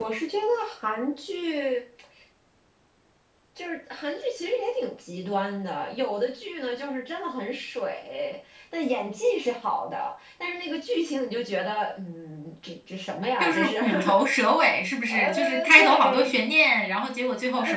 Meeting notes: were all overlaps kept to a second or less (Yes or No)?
No